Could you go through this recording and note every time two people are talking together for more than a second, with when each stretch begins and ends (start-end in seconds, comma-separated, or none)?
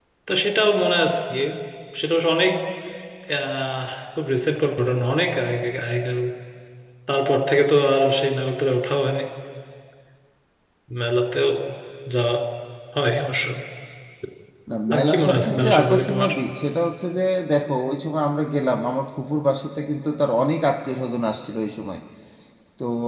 14.9-16.3